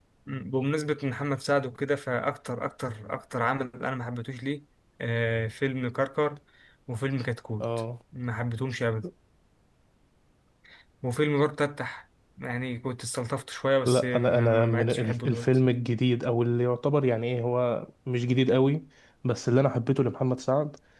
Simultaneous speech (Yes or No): Yes